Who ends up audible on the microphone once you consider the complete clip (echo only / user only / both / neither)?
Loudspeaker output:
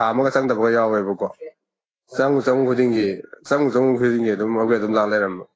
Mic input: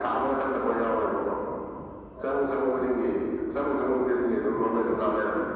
echo only